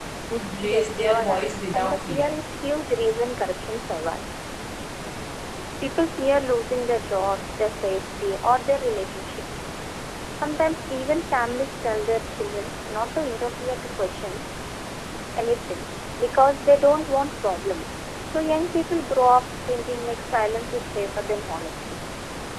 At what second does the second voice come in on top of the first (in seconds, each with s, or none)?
0.6 s